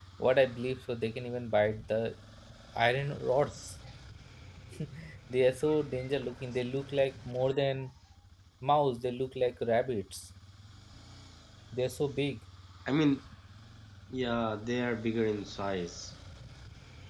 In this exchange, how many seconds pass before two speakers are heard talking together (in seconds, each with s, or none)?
none